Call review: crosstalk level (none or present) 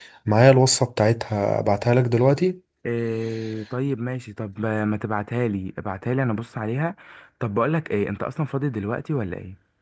none